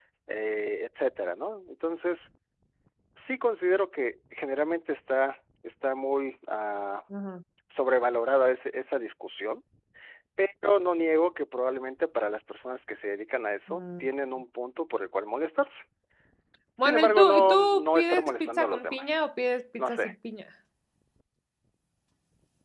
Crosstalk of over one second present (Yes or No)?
Yes